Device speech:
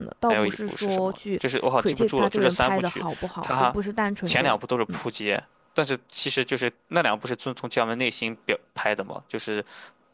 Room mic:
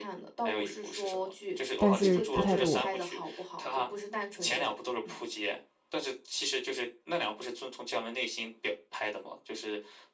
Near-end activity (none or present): present